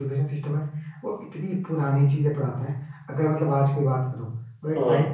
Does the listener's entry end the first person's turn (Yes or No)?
No